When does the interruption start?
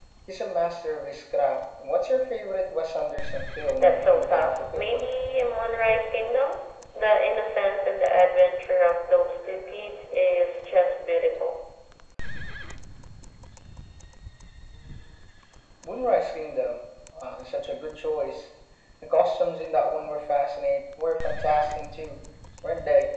3.8 s

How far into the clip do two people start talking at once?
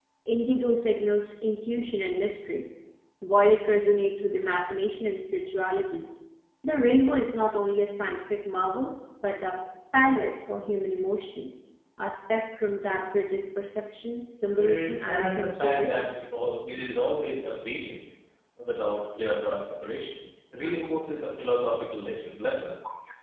14.6 s

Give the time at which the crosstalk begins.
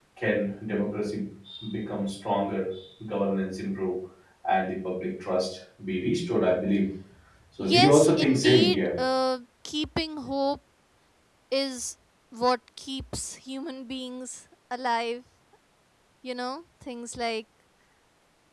7.6 s

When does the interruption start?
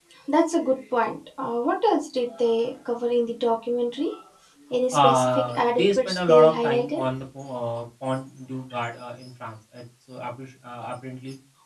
4.9 s

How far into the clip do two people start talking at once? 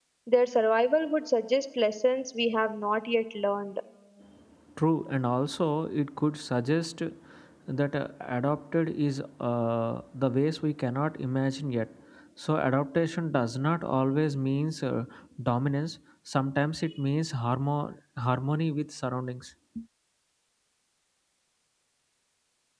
none

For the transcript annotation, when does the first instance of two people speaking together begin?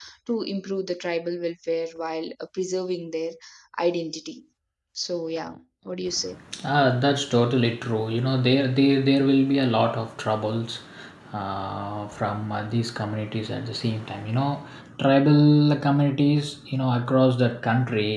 none

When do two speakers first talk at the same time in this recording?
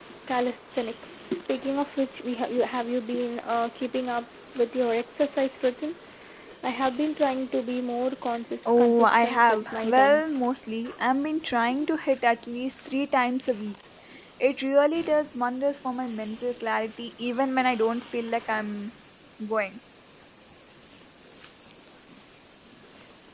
8.7 s

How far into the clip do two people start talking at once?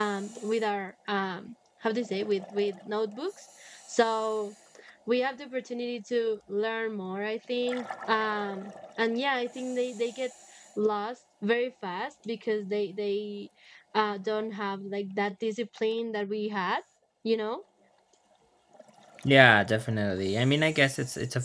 none

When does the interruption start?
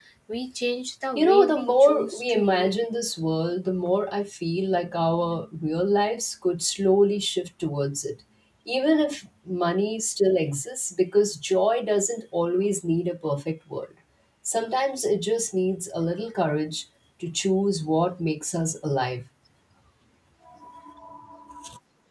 1.1 s

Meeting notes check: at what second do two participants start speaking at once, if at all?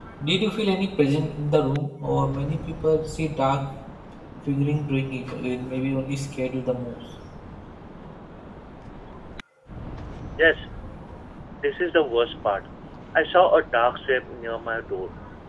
none

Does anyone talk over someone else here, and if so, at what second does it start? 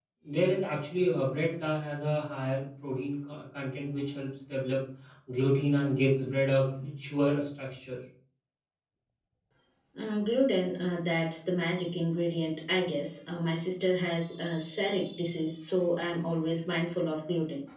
none

